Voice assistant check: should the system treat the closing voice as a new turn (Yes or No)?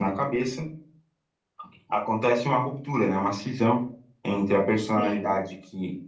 No